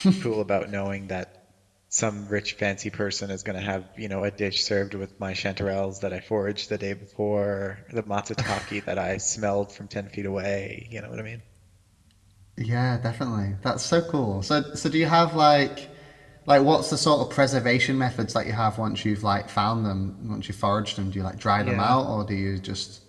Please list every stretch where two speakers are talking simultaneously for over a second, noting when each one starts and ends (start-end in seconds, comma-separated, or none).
none